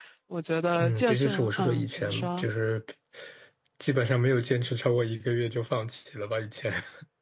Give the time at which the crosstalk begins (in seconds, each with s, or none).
0.8 s